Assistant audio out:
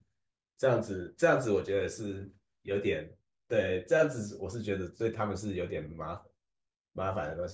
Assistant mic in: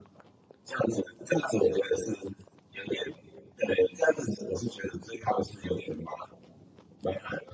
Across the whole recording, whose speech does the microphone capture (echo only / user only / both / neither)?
echo only